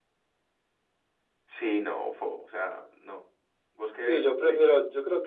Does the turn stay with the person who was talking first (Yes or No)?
No